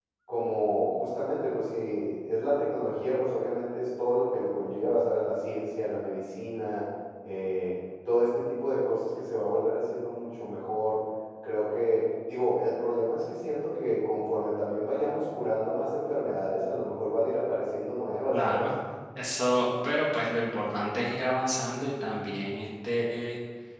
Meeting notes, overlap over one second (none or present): none